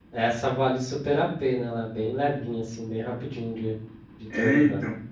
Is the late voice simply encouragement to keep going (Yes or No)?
No